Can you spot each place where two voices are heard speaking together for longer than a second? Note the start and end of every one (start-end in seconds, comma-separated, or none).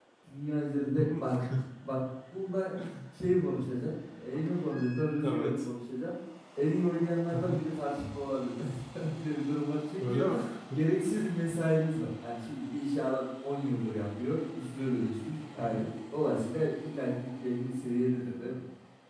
none